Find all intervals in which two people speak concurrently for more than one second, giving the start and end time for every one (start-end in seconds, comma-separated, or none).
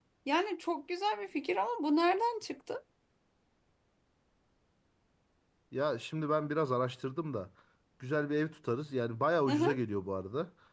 none